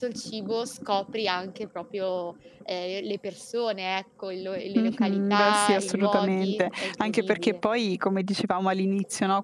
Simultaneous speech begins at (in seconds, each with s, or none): 4.8 s